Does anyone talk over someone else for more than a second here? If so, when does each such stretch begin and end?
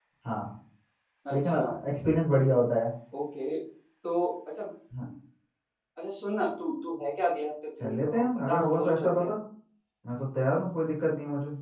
7.8-9.3

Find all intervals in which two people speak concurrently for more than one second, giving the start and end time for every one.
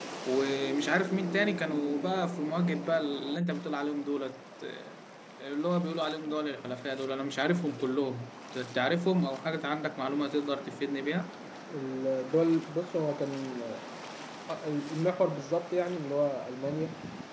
none

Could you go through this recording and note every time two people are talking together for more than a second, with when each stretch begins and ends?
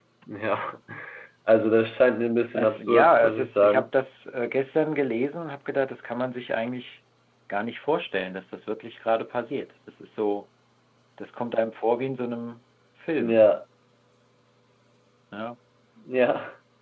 2.5-3.9

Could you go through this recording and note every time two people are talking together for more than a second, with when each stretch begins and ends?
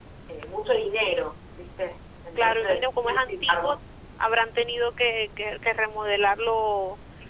2.4-3.8

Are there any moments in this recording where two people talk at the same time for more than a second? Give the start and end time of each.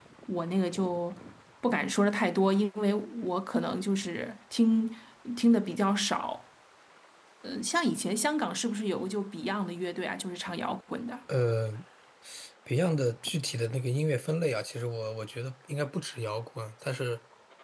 none

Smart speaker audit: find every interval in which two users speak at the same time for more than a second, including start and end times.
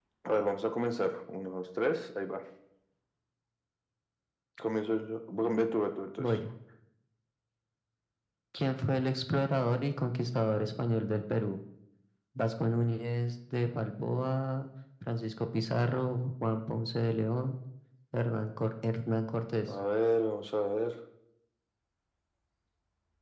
none

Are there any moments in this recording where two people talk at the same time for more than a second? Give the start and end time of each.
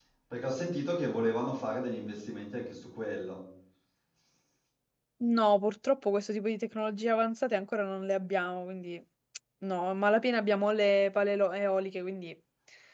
none

